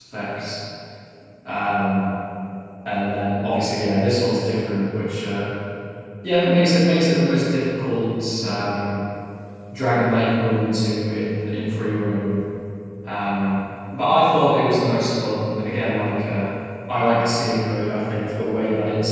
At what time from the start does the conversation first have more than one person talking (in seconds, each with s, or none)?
none